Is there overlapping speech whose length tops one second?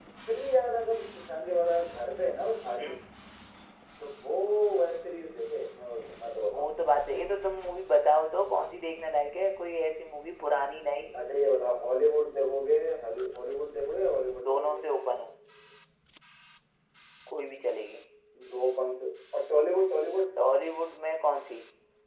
No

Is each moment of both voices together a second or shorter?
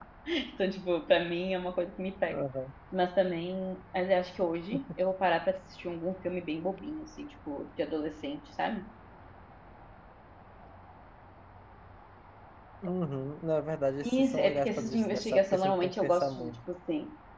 No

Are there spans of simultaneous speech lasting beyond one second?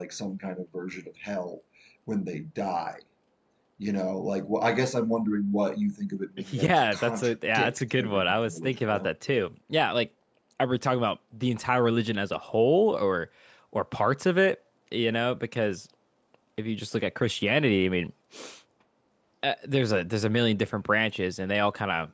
Yes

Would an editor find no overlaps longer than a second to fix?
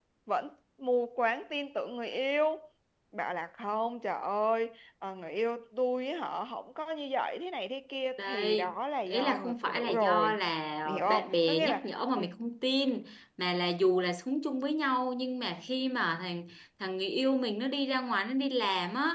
No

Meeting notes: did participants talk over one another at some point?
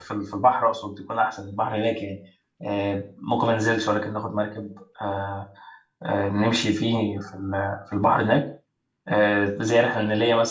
No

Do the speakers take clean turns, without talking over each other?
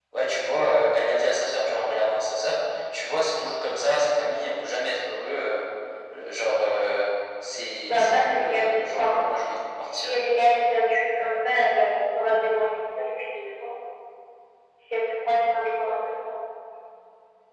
No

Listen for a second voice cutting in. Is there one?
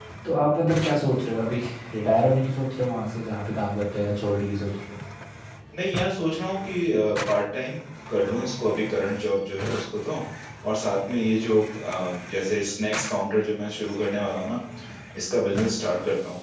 No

